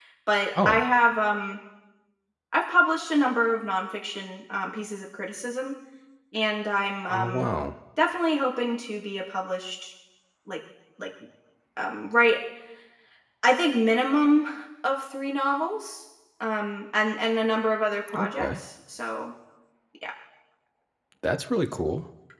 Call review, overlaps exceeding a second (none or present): none